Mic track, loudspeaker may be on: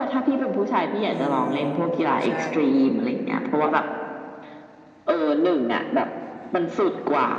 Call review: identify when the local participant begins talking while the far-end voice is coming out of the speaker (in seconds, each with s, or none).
1.1 s